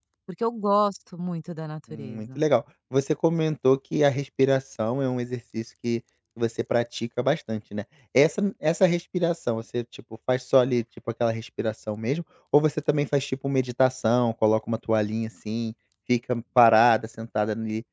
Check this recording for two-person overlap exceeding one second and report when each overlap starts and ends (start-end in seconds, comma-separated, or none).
none